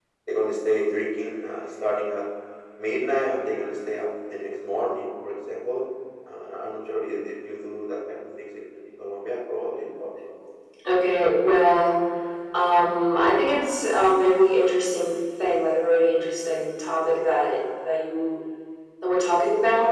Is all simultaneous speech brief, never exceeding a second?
Yes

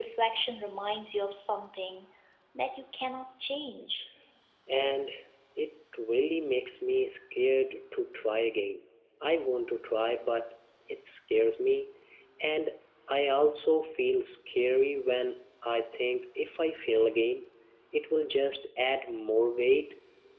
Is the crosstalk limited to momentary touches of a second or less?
Yes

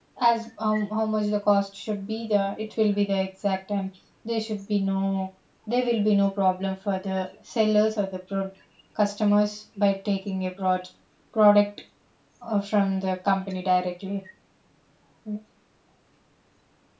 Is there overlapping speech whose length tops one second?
No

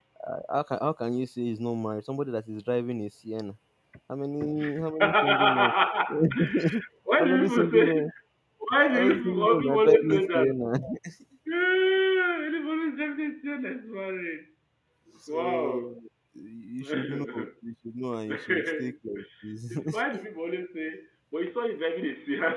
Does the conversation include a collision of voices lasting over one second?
Yes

